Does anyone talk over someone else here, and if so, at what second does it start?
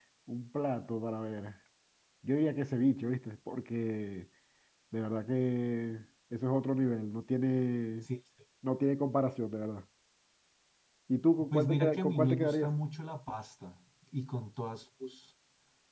11 s

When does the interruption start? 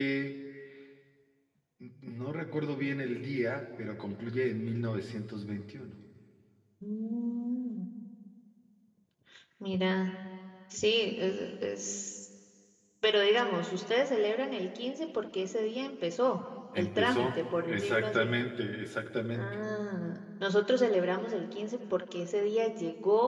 17 s

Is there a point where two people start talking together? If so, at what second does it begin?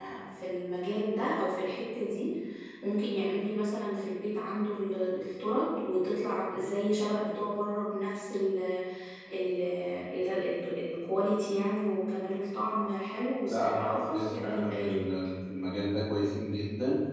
13 s

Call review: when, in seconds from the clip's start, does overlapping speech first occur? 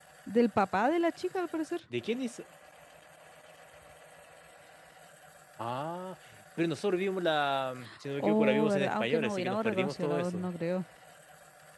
8 s

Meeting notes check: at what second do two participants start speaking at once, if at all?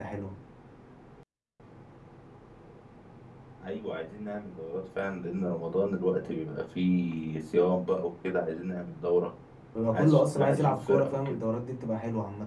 10 s

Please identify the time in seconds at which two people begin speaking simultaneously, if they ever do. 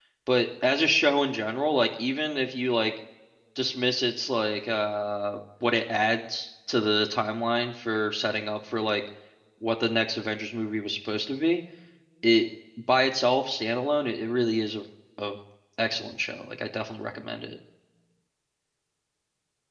none

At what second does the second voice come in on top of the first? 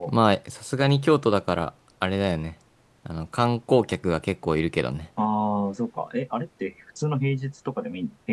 none

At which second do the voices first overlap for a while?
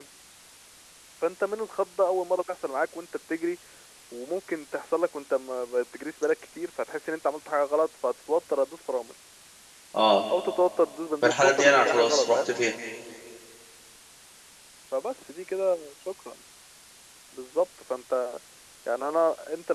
11 s

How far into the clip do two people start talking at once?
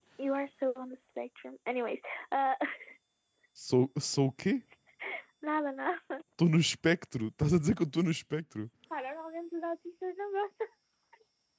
none

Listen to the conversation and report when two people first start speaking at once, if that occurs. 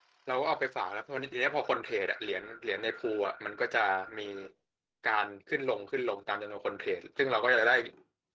none

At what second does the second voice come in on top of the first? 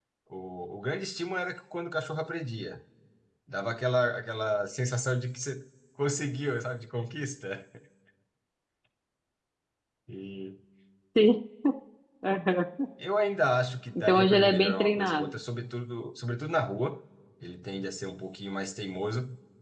14 s

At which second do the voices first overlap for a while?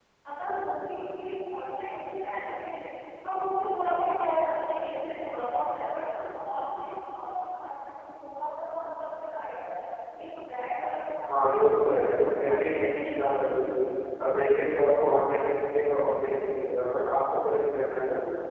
11 s

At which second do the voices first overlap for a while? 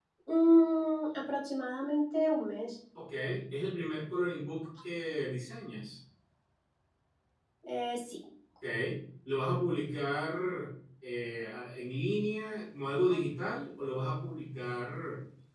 none

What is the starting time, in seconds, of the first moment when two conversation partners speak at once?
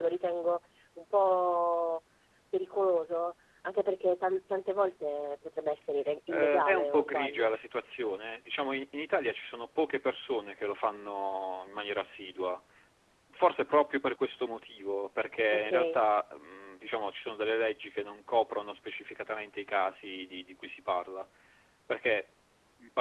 6 s

